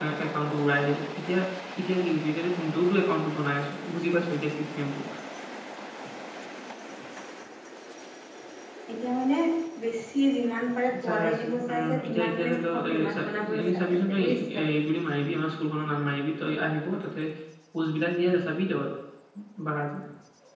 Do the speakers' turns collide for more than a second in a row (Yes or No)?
Yes